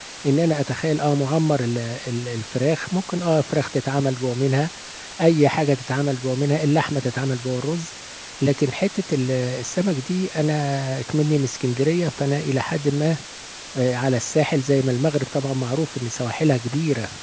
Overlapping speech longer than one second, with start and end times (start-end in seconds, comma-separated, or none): none